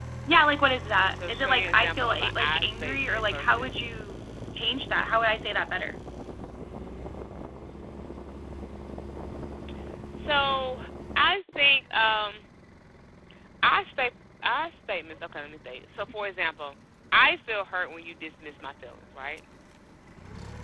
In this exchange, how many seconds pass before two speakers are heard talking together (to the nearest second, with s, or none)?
1 s